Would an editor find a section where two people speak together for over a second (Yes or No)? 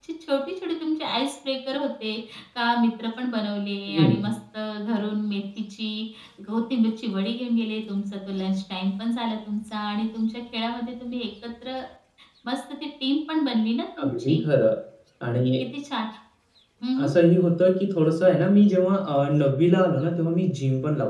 No